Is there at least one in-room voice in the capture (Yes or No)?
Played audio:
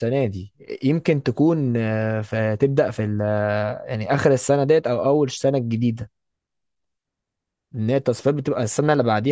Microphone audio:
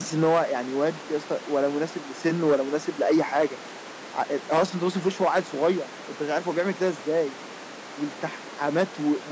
Yes